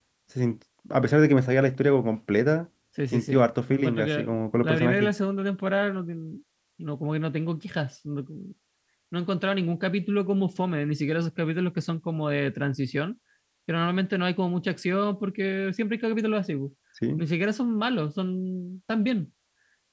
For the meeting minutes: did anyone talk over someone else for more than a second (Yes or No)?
Yes